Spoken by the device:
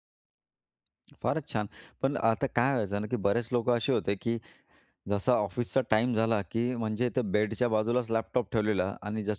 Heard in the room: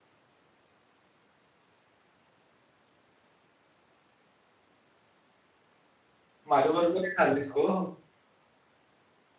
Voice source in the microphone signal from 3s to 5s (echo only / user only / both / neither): neither